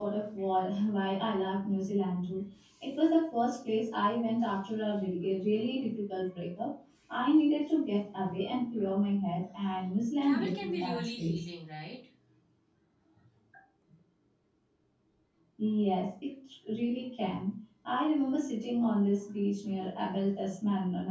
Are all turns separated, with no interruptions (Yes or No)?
No